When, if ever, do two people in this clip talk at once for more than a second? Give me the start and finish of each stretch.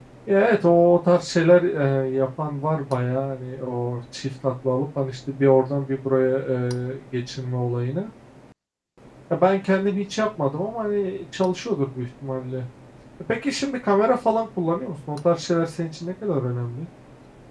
none

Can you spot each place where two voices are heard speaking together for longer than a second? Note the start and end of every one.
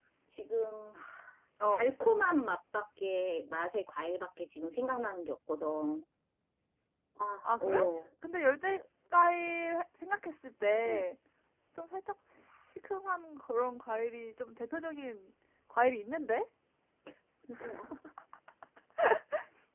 none

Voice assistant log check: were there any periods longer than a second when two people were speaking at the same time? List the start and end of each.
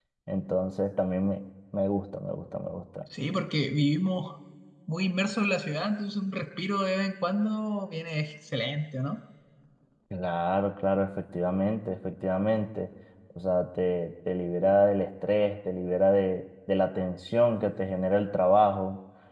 none

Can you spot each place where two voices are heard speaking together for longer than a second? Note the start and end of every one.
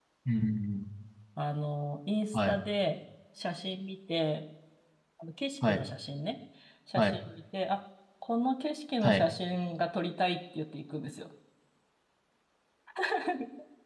none

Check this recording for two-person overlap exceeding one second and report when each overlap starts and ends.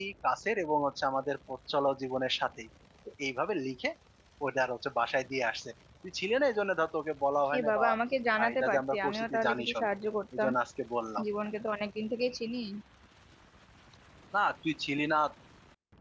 8.4-9.9

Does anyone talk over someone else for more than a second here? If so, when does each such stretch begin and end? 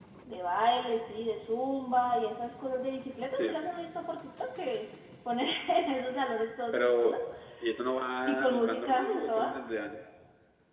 8.3-9.6

